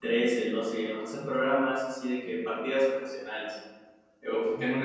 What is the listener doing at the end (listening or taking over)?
listening